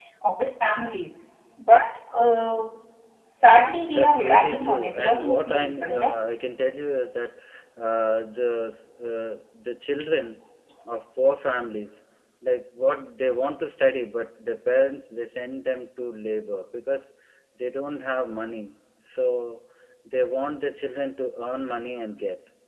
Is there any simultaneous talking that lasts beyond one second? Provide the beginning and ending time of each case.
3.9-6.2

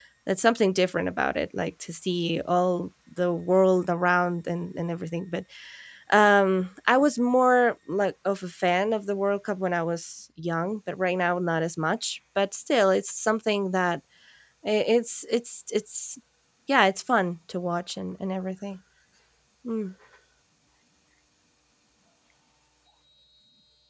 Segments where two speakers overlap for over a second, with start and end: none

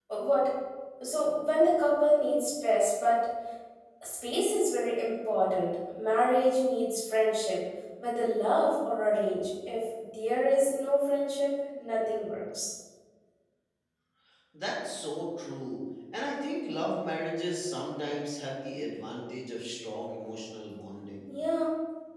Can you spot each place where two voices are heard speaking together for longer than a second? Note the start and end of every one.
none

